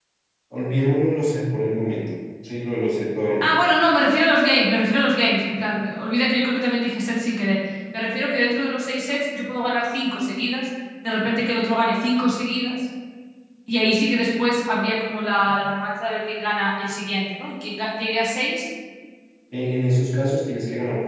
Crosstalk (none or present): none